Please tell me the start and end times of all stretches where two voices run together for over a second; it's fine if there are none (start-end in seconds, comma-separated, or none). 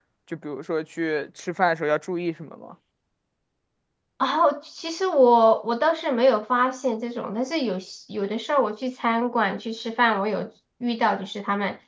none